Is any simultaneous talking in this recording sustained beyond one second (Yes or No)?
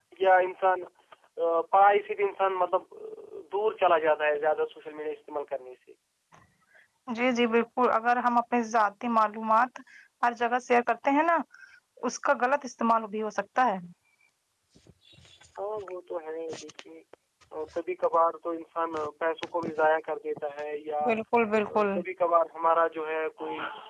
No